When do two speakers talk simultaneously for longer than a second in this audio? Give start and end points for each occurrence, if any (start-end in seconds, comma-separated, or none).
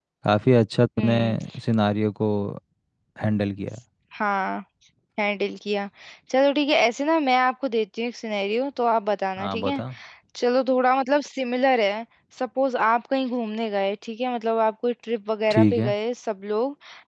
none